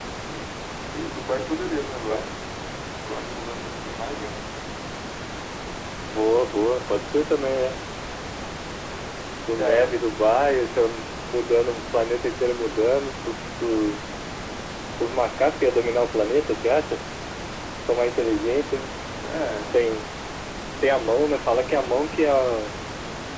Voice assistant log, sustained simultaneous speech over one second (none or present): none